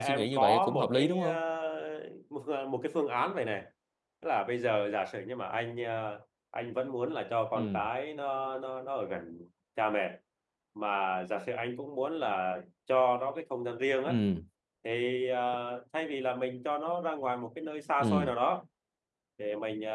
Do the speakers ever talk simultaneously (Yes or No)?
Yes